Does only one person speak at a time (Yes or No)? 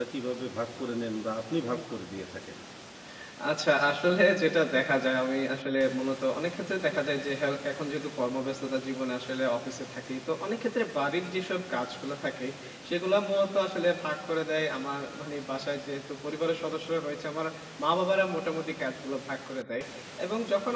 Yes